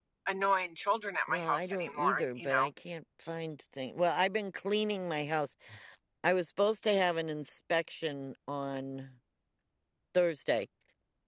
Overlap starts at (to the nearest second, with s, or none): 1 s